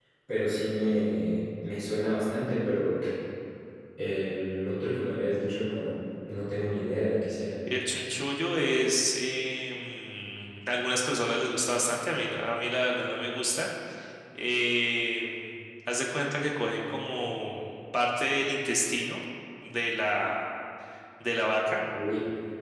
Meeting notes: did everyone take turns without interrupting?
Yes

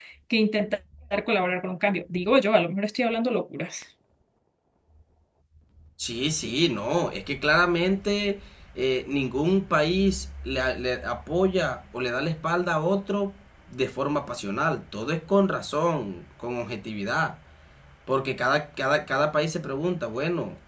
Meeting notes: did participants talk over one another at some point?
No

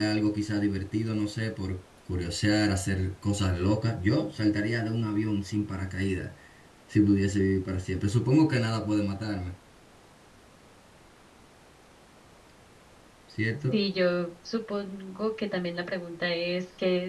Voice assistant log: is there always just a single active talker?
Yes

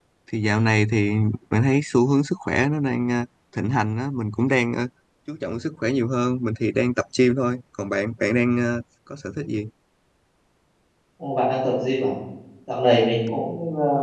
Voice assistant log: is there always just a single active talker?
Yes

